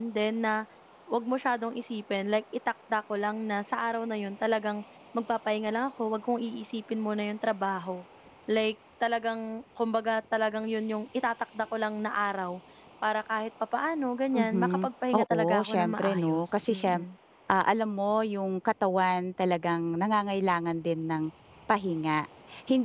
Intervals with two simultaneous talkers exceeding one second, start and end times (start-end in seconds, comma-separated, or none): 14.3-17.0